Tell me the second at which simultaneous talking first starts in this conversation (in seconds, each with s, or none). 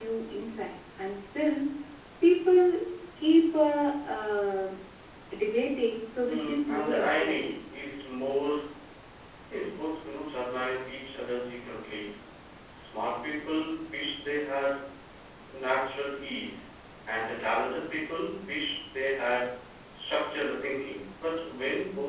6.2 s